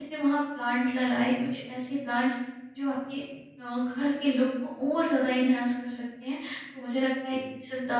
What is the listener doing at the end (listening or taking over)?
listening